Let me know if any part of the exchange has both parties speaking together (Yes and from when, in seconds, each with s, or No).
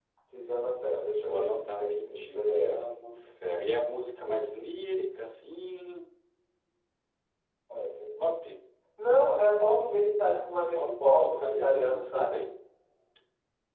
Yes, from 1.1 s